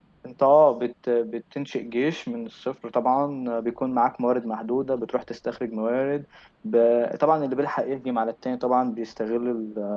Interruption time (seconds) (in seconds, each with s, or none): none